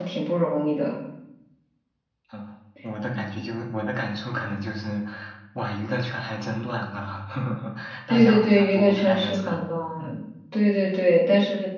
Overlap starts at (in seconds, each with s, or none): 8.1 s